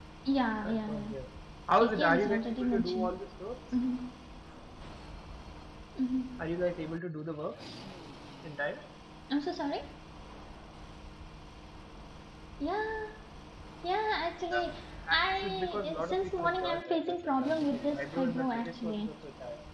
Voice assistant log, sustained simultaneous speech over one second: present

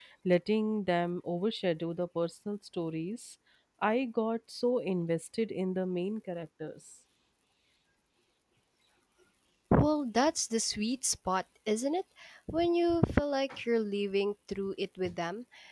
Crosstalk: none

